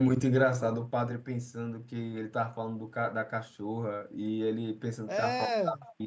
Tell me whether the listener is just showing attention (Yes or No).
Yes